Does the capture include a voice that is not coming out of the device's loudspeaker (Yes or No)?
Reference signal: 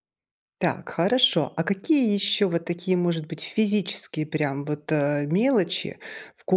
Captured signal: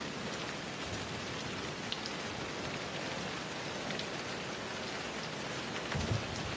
No